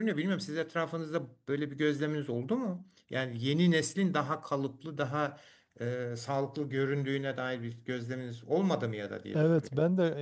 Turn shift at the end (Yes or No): Yes